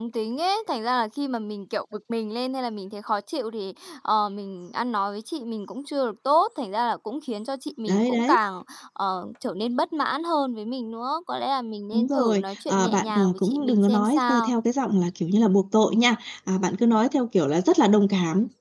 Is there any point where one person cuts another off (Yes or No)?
Yes